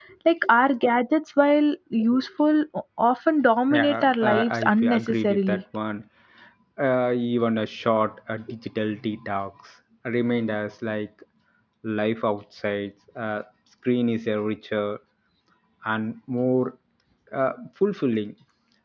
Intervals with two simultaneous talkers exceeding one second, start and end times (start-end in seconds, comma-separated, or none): 3.7-5.6